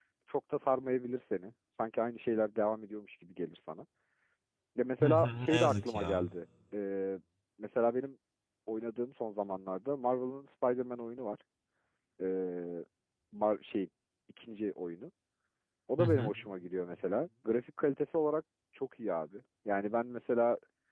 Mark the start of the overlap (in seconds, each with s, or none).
5.0 s